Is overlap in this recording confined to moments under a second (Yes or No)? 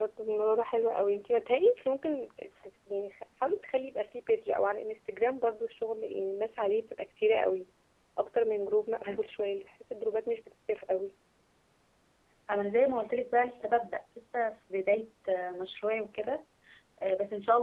Yes